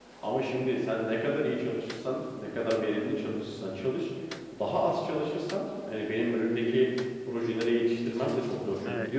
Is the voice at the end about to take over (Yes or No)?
No